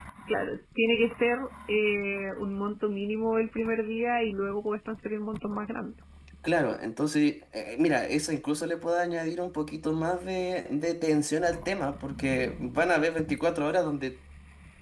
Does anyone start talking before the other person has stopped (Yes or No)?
No